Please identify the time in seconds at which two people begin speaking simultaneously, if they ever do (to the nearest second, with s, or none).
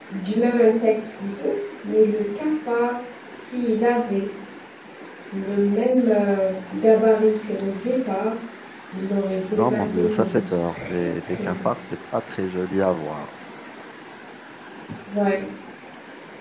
10 s